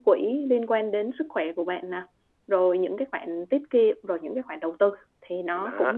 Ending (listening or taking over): taking over